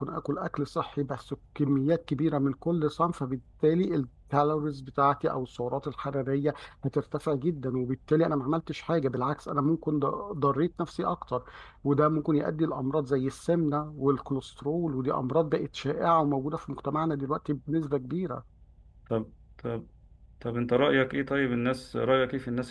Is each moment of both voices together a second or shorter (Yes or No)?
Yes